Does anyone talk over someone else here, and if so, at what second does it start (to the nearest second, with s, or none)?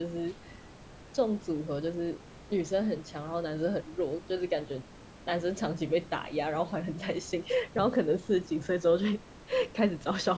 none